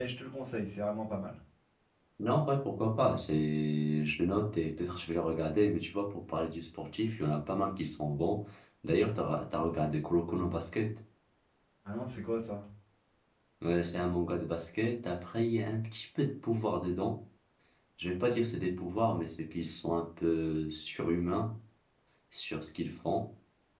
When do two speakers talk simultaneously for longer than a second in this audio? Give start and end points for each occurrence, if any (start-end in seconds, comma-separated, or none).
none